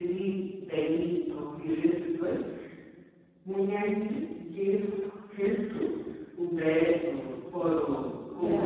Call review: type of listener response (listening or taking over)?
listening